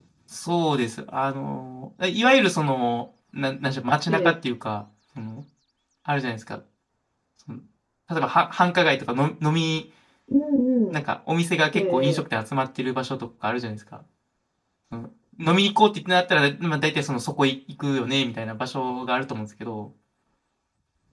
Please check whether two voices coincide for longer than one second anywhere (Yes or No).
No